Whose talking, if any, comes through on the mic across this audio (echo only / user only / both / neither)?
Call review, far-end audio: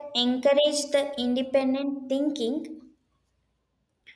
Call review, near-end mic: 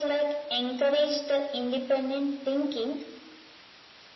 echo only